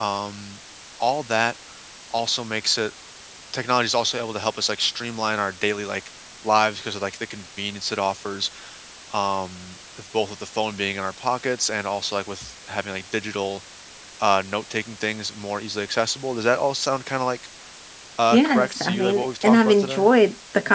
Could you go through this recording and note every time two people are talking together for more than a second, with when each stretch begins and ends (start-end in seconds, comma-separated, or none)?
18.3-20.0